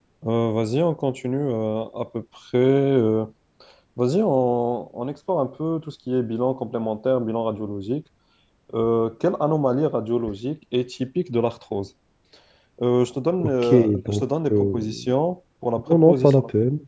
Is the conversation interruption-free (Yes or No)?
No